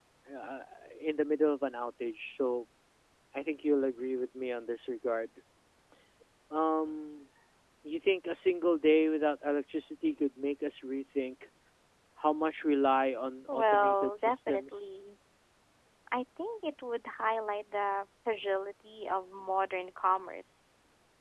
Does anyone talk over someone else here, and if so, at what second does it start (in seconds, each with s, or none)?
13.5 s